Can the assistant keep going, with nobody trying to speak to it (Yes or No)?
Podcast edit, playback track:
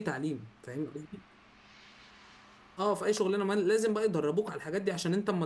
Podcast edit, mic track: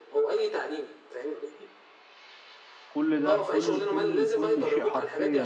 No